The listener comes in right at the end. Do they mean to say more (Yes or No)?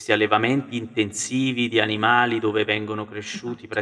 No